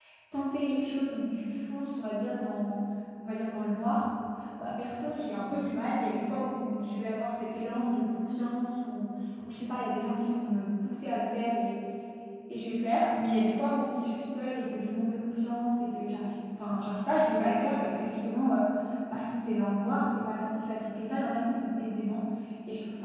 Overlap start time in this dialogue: none

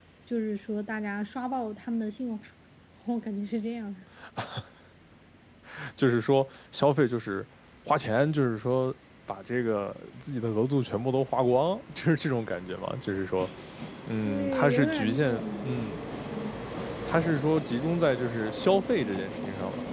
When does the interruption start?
14 s

